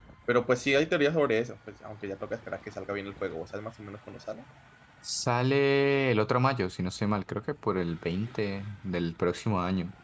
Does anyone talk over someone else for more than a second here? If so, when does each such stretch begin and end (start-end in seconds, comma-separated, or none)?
none